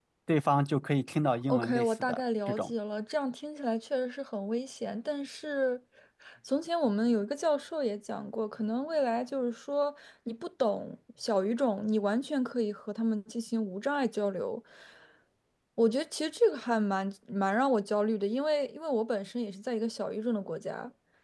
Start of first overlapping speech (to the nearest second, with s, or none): 1 s